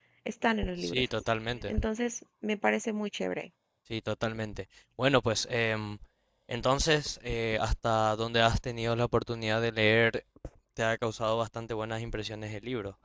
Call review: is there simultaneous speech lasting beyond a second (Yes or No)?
No